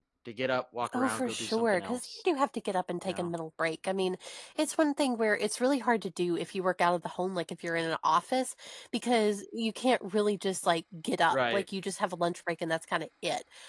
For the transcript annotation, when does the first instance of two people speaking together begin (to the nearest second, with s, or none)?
1 s